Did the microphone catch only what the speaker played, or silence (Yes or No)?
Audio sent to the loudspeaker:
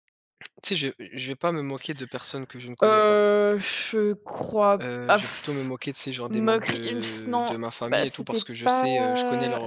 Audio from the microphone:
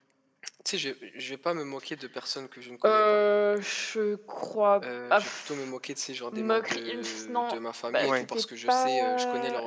No